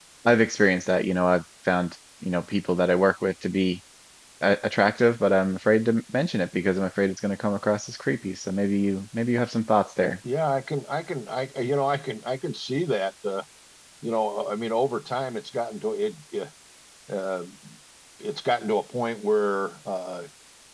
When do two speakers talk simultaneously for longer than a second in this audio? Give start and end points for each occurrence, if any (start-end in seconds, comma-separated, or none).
none